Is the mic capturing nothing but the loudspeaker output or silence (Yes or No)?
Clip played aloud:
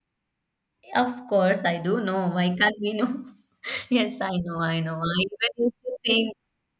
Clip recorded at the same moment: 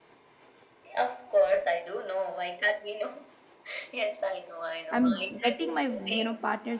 No